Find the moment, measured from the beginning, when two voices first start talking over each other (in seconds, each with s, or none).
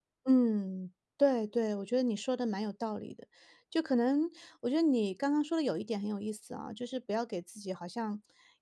none